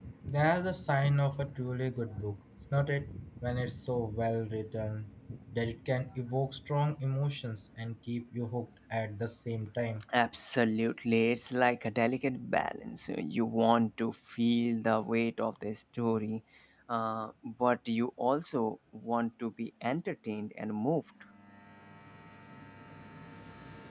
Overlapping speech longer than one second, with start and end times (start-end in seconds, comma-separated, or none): none